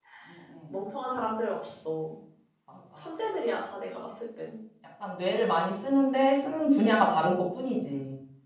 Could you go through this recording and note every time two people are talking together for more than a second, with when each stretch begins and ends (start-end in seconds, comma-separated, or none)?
none